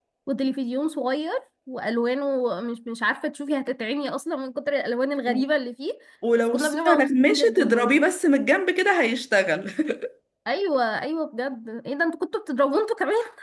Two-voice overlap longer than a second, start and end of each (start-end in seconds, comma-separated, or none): 6.4-8.0